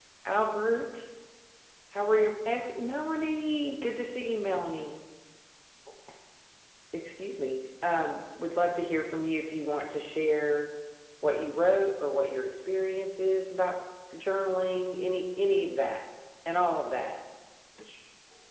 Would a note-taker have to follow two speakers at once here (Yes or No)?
No